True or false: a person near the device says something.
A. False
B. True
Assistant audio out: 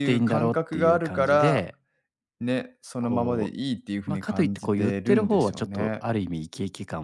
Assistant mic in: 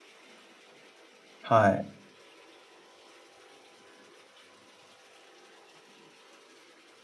B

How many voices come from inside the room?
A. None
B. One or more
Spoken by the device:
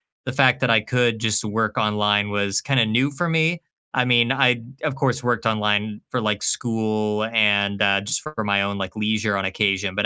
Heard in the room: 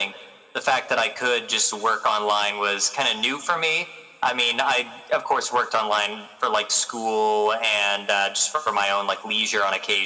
A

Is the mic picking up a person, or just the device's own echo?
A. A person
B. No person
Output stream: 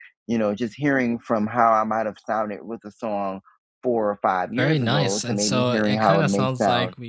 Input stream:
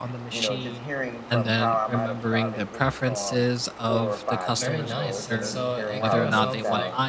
A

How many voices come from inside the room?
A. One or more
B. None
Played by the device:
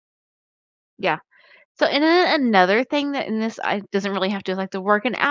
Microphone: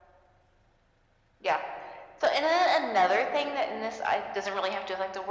B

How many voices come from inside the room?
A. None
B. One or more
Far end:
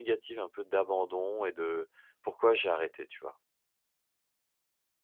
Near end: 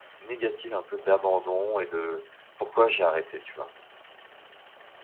A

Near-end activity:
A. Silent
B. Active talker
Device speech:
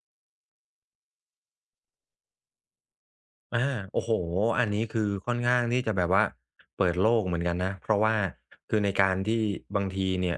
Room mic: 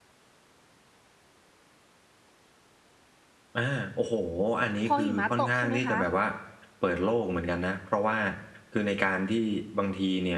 B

